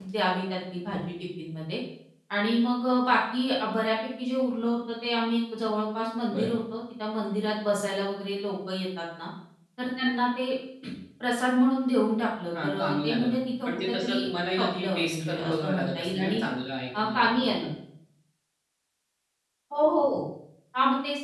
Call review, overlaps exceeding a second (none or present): present